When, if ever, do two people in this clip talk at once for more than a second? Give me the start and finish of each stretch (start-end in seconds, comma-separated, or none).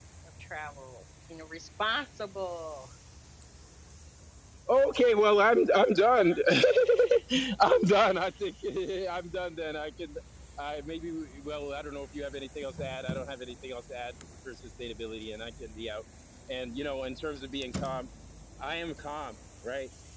none